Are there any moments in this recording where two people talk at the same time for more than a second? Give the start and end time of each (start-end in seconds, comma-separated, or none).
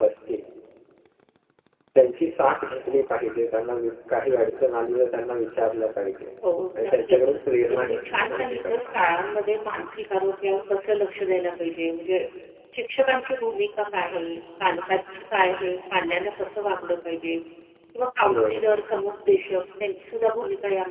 7.7-9.0